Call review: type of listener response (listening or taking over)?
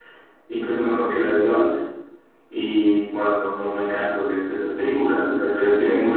taking over